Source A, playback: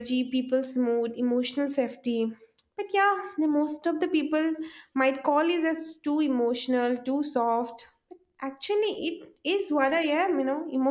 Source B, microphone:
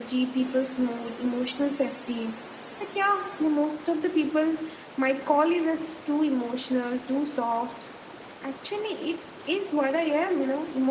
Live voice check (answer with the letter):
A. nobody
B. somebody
A